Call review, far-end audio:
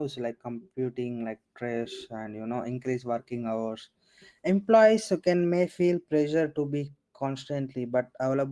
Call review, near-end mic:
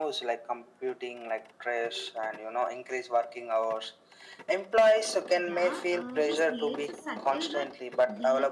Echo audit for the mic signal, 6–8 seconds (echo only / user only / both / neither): both